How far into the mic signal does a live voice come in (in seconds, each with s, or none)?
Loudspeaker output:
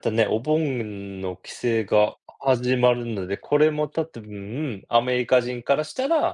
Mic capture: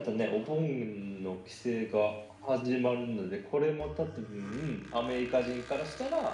none